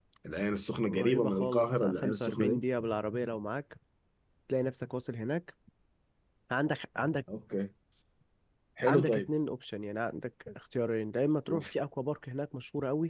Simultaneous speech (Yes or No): Yes